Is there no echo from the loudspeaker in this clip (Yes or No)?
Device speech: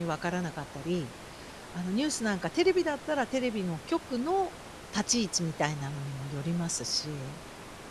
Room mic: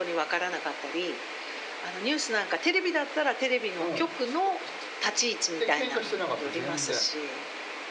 No